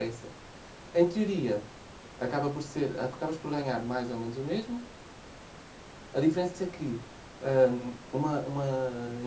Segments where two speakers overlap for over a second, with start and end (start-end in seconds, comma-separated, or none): none